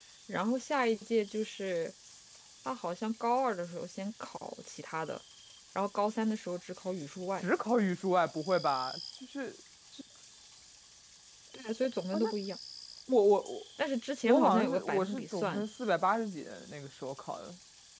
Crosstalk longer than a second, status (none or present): present